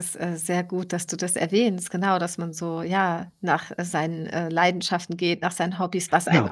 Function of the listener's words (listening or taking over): listening